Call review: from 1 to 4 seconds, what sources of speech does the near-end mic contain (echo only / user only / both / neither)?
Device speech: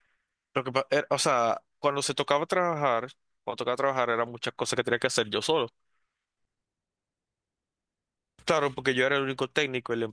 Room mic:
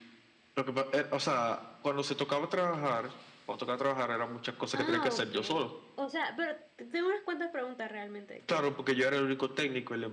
echo only